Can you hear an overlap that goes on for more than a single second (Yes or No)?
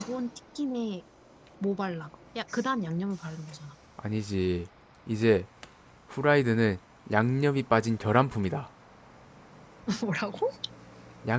No